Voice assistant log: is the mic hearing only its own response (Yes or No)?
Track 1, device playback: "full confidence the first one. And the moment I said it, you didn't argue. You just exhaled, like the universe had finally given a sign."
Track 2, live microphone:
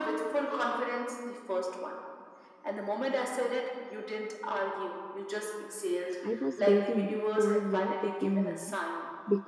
No